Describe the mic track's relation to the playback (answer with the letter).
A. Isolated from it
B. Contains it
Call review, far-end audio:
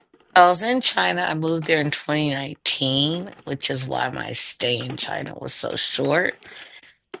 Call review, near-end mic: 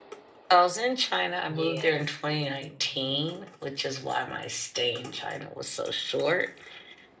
B